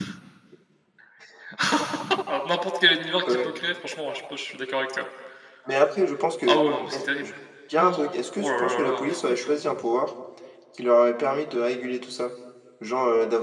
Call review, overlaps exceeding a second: present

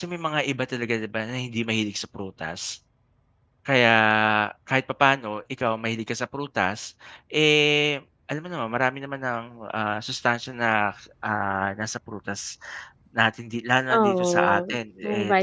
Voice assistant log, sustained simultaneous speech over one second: present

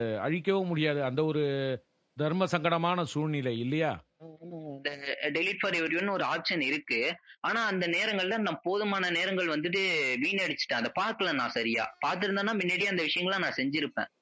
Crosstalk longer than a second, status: none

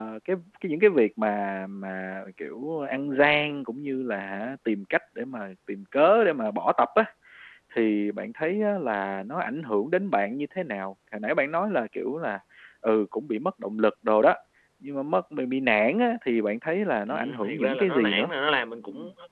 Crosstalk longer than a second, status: present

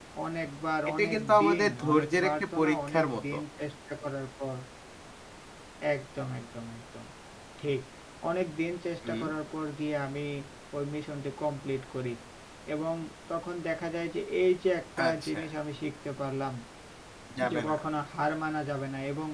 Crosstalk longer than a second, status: present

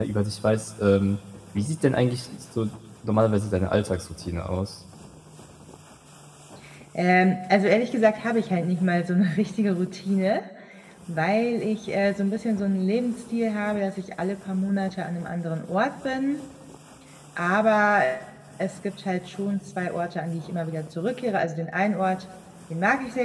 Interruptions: none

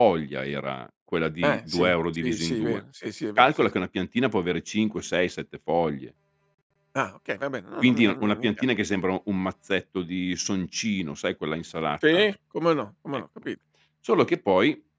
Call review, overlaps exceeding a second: present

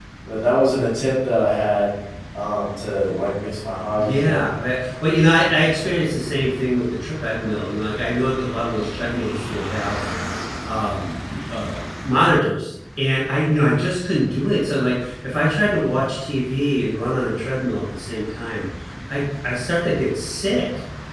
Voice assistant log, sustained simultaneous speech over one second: none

